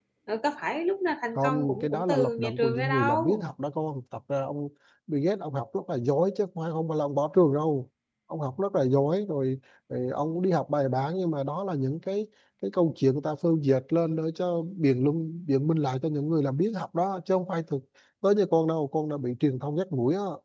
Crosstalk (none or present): present